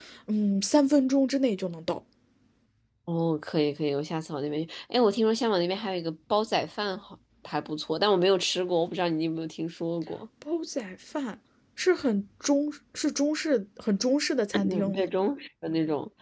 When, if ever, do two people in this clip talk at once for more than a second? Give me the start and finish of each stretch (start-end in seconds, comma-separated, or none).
none